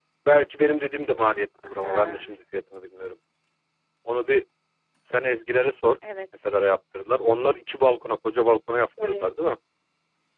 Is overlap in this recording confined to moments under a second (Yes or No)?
Yes